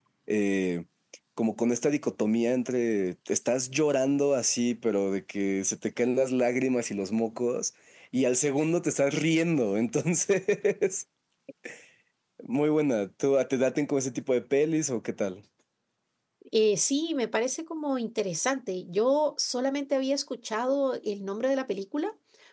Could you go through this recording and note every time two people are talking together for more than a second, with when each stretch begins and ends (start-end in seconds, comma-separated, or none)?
none